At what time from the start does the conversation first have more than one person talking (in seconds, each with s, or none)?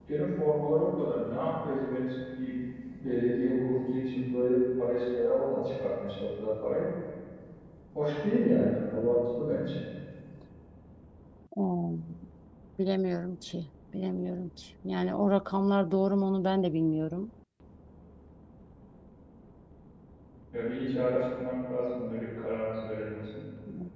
none